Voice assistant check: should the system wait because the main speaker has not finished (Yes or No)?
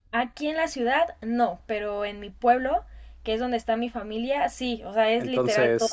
No